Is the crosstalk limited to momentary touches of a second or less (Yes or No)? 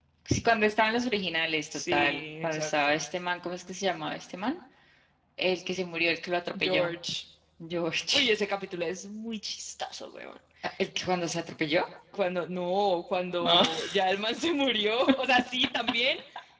No